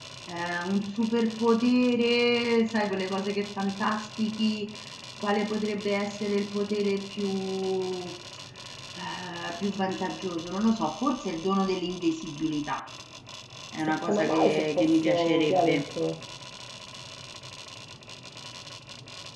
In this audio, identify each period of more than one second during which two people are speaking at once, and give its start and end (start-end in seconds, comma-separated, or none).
14.0-15.8